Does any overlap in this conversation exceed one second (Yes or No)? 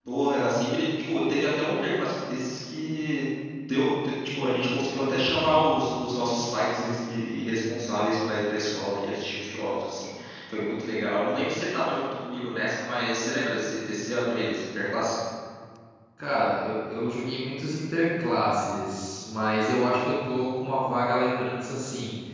No